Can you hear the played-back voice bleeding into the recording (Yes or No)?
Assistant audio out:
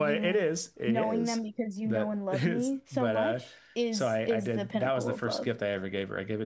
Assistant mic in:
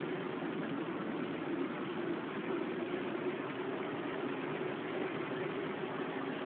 No